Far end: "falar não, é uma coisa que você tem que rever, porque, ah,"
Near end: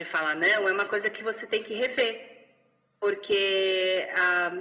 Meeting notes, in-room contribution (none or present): none